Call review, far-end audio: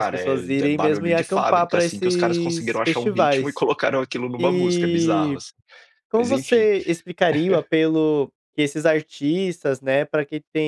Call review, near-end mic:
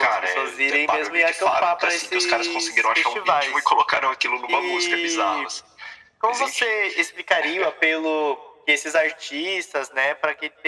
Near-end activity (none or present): none